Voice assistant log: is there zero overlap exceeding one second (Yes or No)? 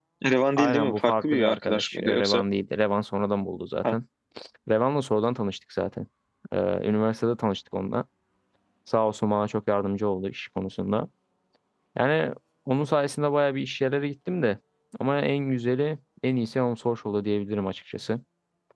No